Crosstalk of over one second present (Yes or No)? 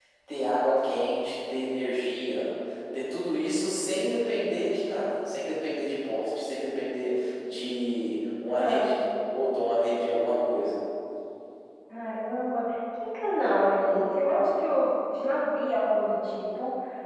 No